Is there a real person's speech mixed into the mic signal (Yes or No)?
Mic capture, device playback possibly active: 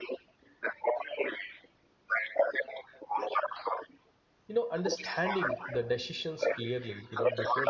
Yes